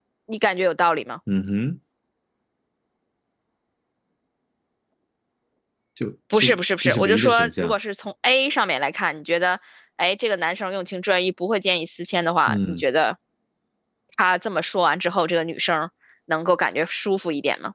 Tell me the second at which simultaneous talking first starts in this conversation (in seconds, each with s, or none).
6.4 s